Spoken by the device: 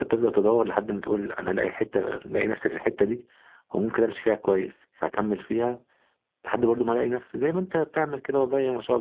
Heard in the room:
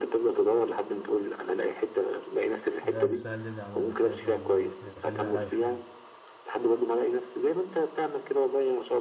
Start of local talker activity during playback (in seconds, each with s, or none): 2.8 s